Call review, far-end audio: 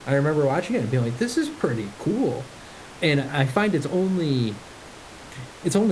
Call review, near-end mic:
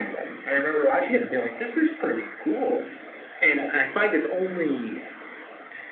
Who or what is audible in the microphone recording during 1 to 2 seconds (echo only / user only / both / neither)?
echo only